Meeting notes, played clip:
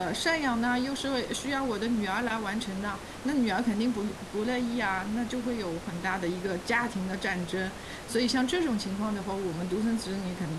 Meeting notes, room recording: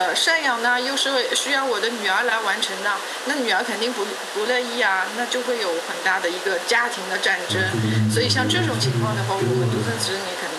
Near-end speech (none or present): present